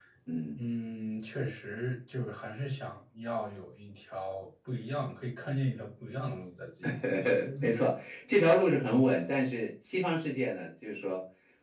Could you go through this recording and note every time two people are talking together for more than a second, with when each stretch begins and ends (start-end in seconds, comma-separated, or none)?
none